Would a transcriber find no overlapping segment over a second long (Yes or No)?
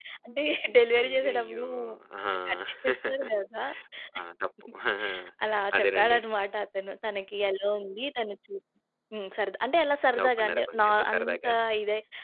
No